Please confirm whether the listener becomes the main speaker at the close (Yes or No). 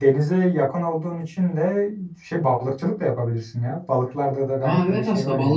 Yes